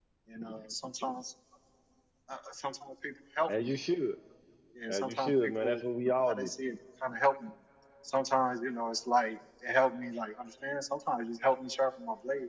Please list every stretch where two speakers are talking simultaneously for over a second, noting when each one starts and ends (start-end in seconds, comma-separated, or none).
4.9-6.5